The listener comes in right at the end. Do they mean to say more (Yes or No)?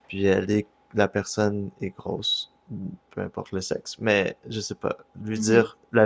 No